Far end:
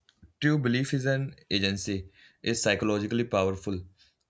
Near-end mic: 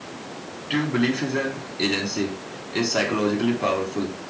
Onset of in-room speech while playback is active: none

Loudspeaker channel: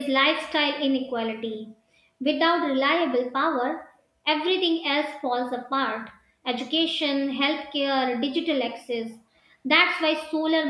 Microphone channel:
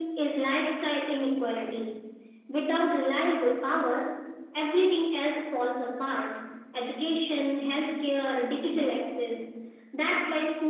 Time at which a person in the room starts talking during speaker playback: none

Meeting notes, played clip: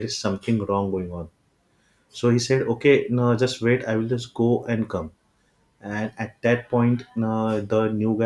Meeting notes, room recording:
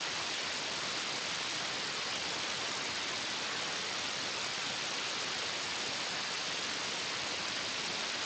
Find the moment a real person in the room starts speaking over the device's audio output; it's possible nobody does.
none

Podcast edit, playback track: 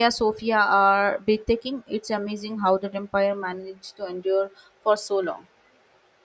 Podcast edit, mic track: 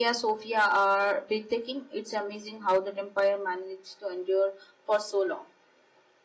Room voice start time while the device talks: none

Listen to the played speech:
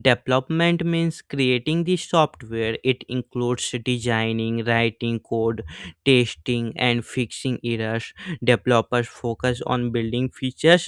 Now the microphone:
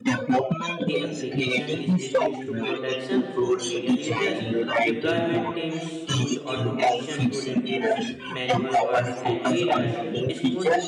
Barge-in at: 1 s

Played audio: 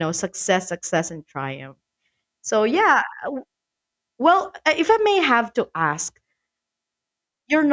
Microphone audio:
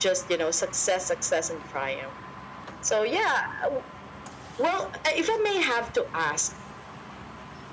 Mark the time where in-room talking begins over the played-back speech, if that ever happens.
none

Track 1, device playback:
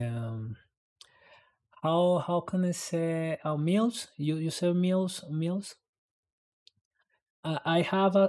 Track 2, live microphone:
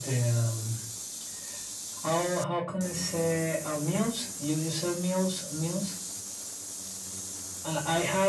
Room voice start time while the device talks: none

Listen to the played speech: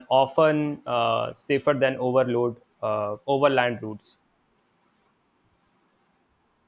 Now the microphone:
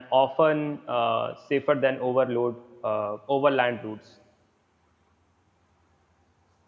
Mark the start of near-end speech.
none

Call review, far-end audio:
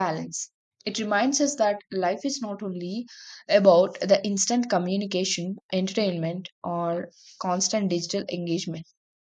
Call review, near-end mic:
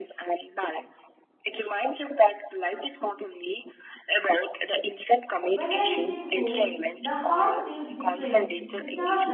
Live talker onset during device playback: 6 s

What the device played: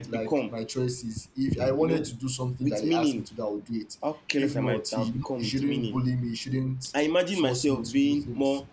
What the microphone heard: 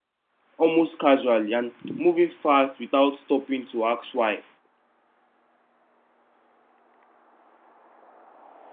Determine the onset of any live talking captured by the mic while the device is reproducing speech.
1 s

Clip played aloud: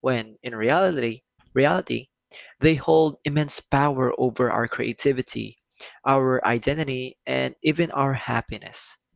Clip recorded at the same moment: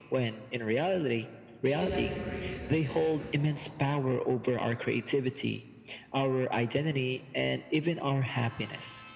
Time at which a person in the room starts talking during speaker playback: 2 s

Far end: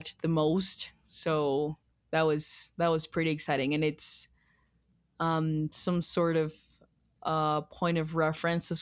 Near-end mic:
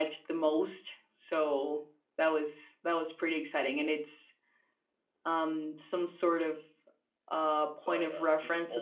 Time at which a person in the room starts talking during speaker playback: 8 s

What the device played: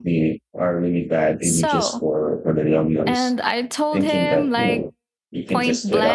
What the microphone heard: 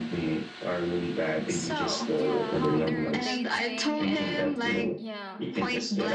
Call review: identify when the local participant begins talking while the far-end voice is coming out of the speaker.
2 s

